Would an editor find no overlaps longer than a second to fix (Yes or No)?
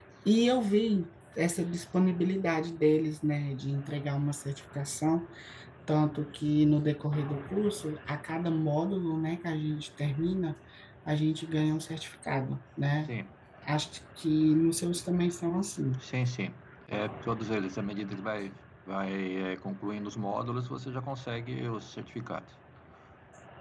Yes